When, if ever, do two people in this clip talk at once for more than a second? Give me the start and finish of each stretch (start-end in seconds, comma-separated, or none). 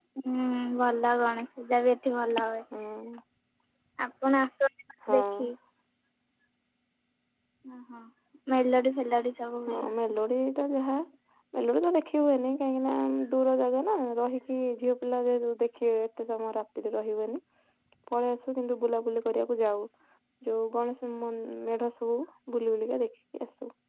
none